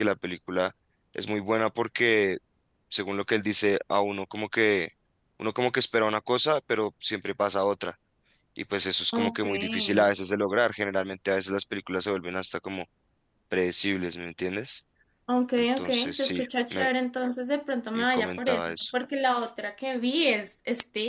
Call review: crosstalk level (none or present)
present